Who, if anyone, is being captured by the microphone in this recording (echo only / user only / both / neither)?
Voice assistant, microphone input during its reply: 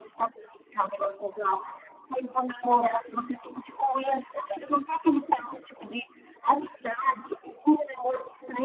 echo only